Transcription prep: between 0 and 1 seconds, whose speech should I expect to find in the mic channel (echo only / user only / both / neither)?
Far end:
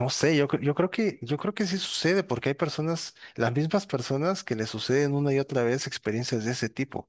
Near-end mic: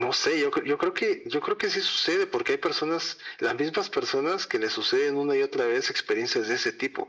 echo only